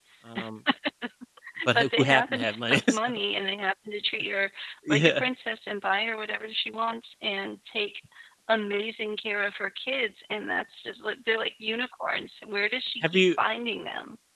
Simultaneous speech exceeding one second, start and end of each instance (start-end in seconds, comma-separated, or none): 1.8-3.1